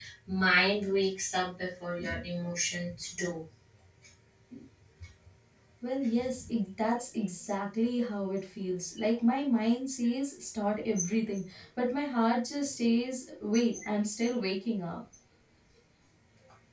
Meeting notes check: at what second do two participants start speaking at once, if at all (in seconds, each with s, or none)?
none